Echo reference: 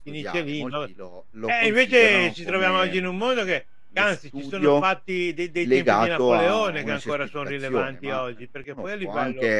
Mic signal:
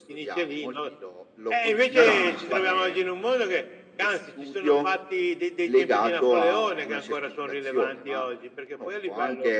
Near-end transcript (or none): No, no, ma infatti